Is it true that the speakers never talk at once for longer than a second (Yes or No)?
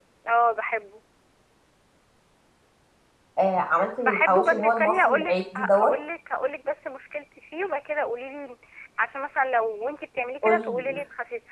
No